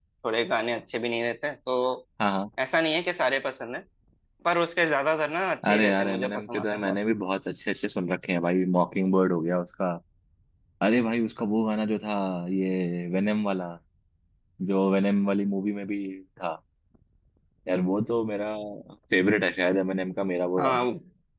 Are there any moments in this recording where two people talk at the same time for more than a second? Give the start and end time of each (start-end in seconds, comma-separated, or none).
5.7-7.0